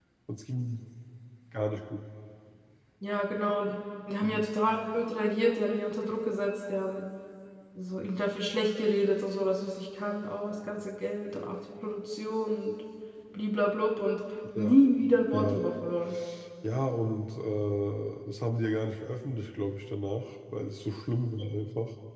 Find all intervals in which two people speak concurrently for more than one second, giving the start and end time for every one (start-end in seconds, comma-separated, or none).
none